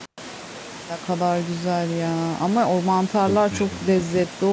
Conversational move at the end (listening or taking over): listening